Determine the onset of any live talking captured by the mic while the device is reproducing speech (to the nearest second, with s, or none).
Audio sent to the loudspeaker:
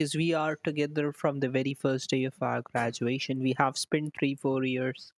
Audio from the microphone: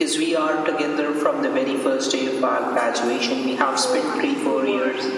4 s